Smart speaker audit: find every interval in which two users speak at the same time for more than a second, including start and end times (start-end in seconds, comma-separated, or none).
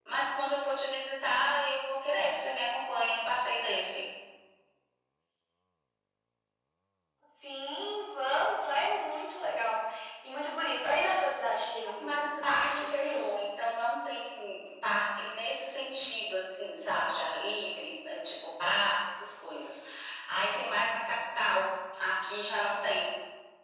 12.0-13.3